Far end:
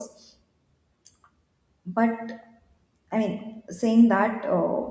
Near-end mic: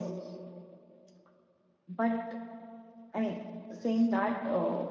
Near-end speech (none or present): none